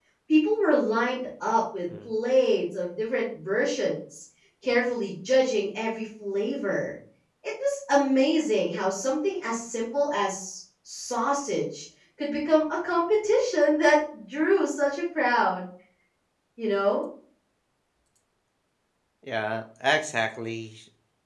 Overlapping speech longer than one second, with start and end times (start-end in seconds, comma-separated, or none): none